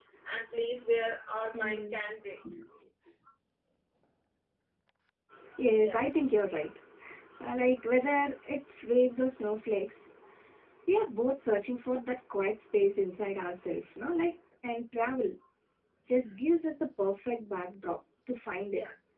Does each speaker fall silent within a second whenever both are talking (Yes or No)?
Yes